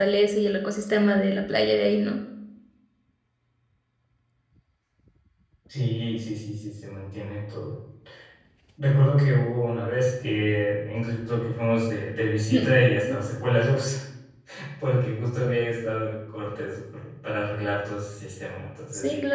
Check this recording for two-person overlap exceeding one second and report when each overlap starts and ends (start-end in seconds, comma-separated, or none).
none